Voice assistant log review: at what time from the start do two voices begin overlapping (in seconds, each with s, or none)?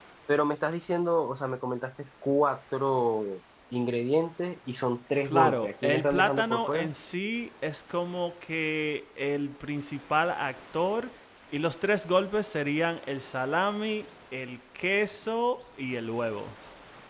5.2 s